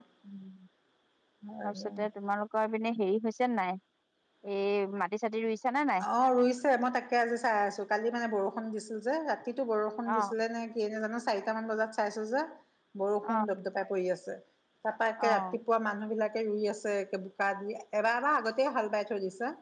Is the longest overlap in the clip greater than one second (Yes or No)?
No